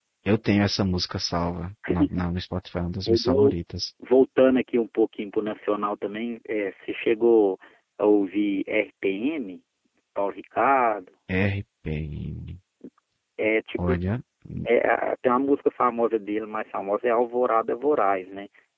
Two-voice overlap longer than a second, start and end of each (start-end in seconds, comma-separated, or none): none